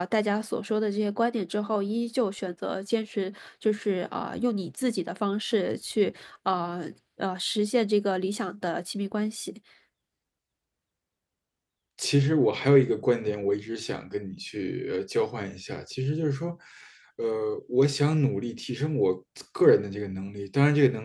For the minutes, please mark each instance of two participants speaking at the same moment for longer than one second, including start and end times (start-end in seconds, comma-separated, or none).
none